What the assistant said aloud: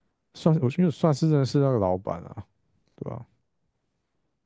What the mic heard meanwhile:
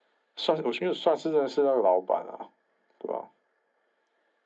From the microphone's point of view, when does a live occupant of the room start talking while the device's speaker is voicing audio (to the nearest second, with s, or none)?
none